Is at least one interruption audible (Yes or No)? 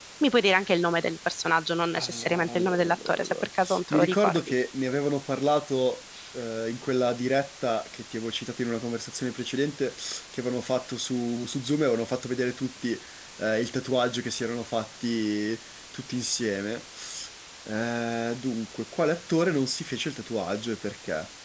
Yes